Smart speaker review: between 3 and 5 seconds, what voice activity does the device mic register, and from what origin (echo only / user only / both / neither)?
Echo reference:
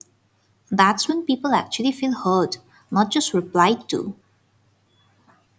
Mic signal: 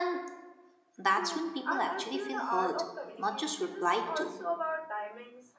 both